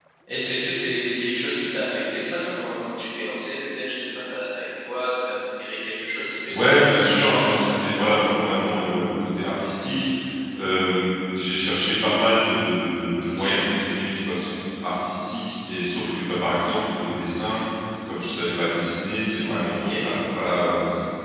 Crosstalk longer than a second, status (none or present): present